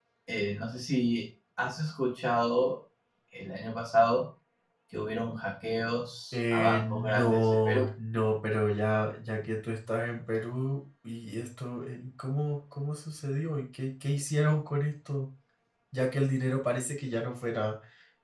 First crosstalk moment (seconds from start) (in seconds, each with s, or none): 6.3 s